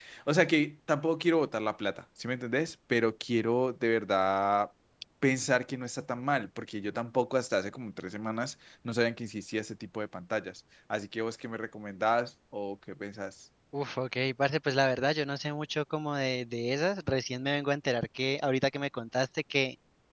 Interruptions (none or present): none